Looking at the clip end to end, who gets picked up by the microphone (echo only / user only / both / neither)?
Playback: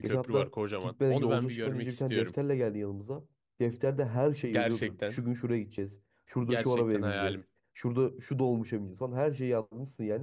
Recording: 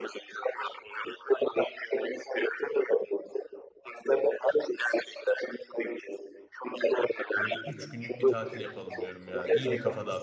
both